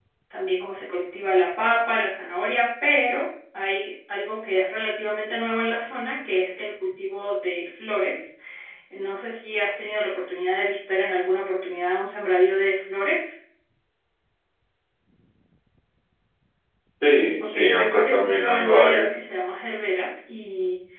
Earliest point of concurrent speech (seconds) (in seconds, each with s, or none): 17.4 s